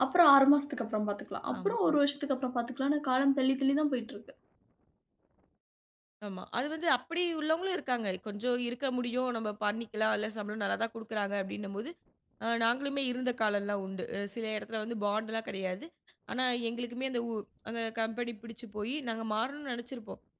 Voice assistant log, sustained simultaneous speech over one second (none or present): none